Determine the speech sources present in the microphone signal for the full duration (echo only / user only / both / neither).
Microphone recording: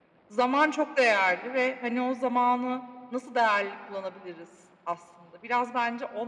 echo only